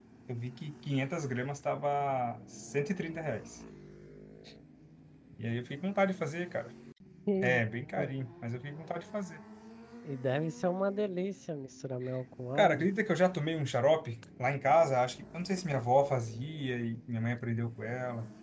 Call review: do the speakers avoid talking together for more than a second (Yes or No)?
Yes